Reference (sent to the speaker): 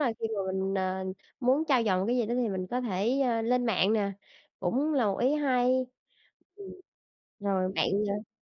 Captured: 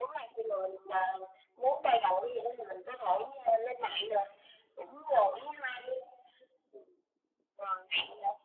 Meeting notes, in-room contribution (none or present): none